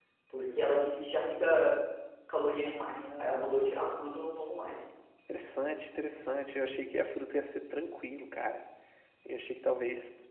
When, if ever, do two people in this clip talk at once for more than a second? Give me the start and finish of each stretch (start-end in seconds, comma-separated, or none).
2.6-3.9